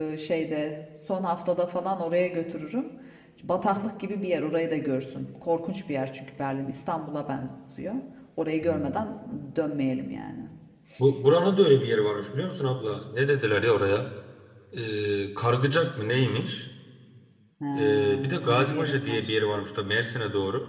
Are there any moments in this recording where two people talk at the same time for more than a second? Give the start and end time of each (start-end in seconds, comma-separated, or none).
17.8-19.2